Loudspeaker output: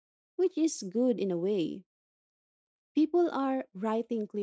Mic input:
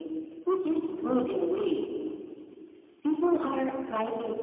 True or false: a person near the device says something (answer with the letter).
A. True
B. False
B